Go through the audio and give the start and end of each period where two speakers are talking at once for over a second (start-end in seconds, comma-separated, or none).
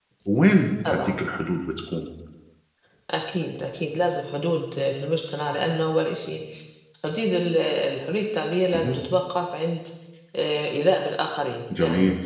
none